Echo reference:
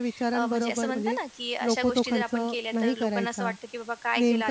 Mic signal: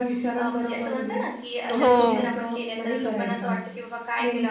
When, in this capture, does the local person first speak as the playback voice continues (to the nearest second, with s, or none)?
2 s